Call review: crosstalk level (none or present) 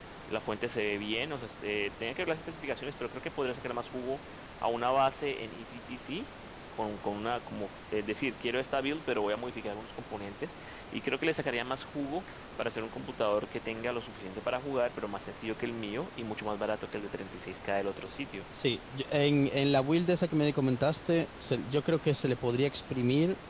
none